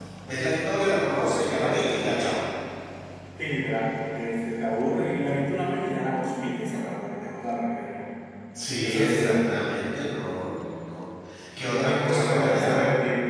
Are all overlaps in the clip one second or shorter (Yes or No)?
No